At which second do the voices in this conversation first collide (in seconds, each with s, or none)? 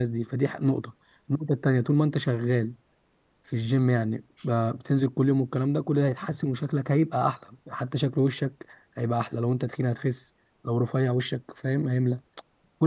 none